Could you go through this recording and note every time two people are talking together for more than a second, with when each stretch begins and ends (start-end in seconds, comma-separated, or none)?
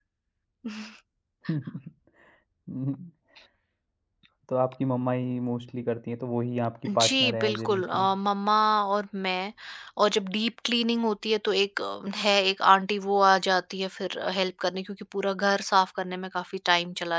6.9-8.1